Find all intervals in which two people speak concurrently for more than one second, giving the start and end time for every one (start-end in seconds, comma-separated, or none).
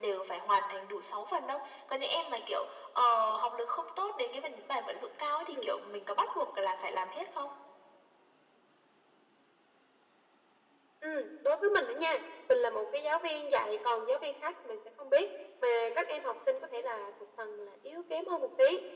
none